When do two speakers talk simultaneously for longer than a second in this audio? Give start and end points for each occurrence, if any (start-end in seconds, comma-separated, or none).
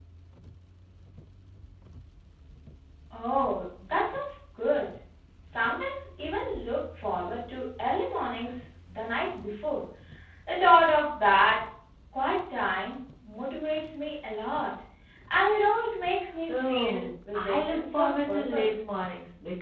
16.5-18.8